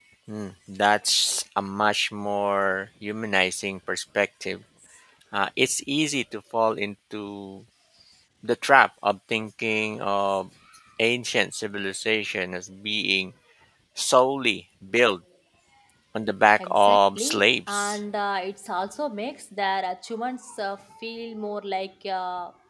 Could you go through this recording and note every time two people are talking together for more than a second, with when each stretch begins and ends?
16.6-18.0

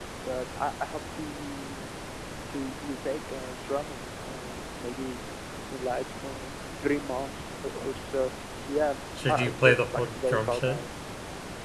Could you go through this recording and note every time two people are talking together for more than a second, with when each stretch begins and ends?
9.3-10.8

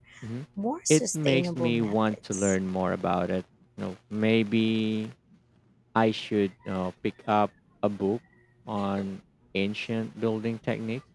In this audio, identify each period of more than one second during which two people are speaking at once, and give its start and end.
0.9-2.5

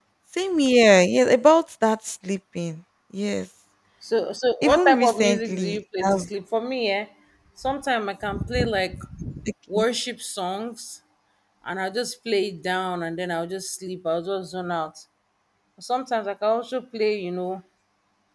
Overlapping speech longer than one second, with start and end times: 4.6-6.2

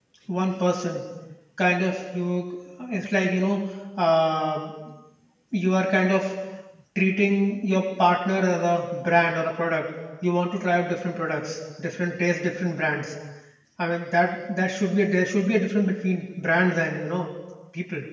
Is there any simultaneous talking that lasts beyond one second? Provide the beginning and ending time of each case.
none

